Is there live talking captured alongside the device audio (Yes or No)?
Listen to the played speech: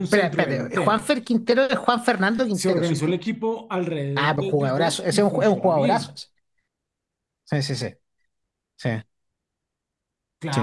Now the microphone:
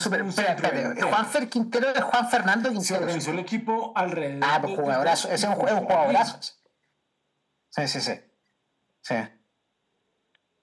No